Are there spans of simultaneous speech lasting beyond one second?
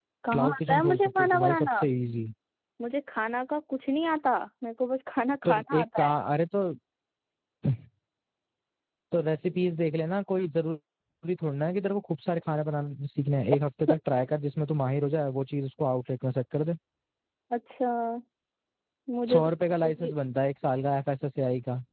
Yes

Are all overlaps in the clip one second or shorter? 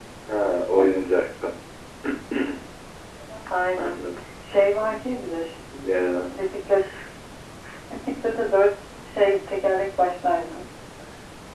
Yes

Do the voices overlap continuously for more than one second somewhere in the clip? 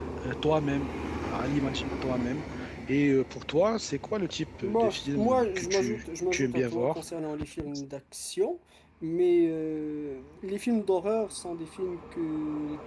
Yes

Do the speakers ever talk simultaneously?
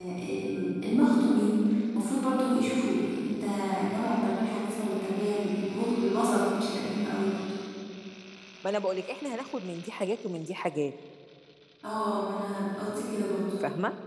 No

